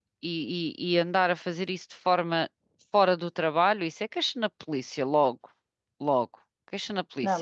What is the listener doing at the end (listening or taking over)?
taking over